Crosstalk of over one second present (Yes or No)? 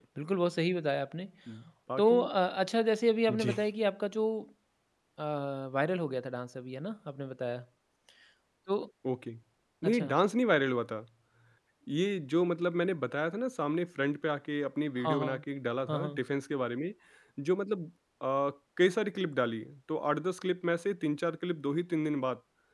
No